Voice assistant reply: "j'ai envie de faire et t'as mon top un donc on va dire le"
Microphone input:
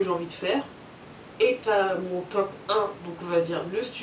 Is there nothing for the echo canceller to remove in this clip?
No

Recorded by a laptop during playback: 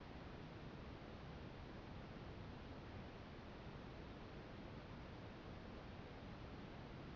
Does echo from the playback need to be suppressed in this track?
No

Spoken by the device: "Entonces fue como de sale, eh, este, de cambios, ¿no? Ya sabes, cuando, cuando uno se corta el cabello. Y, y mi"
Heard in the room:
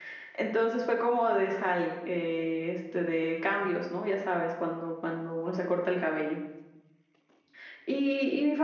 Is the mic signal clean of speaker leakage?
No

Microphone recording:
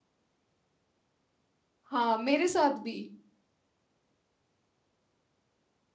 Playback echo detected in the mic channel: No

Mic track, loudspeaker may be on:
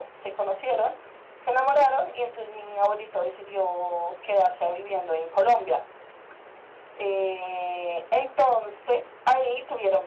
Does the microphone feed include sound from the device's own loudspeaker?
Yes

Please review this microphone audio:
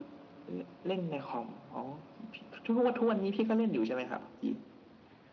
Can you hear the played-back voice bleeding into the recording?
Yes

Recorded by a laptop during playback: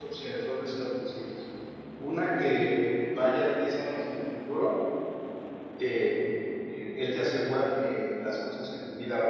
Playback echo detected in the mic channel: No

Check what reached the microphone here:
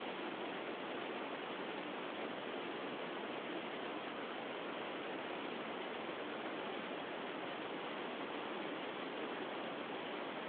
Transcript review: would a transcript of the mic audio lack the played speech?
Yes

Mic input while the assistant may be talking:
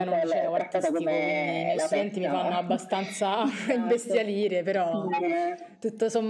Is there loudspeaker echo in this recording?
Yes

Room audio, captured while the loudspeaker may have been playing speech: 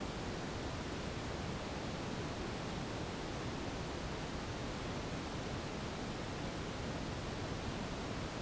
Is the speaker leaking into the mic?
No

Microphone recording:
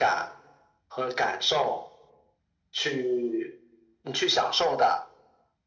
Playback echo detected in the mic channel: Yes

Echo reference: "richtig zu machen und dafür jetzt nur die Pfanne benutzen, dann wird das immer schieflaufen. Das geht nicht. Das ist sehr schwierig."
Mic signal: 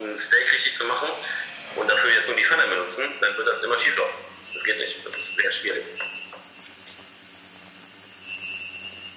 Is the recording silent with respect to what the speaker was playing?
No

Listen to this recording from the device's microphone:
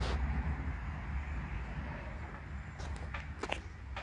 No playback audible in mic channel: Yes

